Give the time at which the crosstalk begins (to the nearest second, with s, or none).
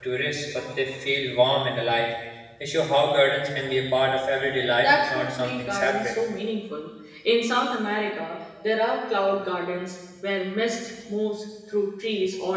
5 s